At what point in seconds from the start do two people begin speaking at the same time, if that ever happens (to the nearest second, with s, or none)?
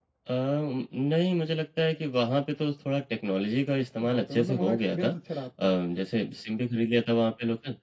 4 s